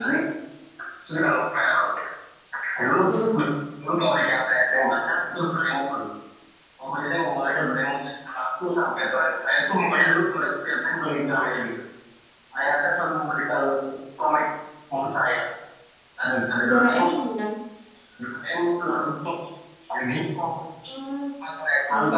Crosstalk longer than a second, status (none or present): none